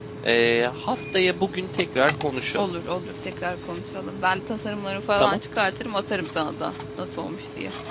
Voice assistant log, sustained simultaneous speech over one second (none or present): none